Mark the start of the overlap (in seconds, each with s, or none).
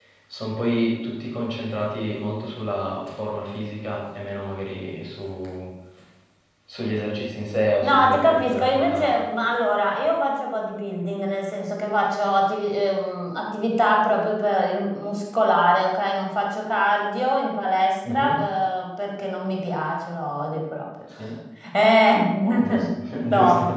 7.8 s